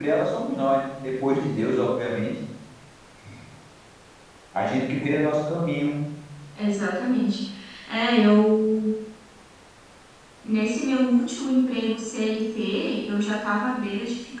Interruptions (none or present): none